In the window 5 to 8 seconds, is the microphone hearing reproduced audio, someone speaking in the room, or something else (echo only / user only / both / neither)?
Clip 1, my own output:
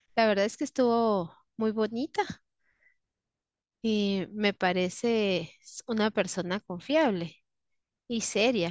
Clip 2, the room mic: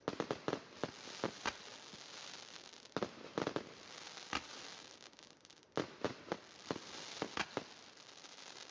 neither